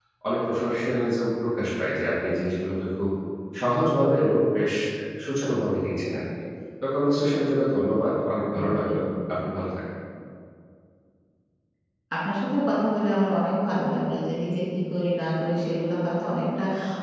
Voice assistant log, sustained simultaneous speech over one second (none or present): none